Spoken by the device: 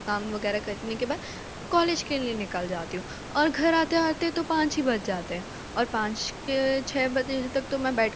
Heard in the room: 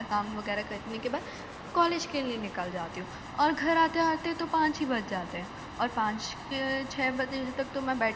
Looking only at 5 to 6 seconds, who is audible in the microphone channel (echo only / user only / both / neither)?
echo only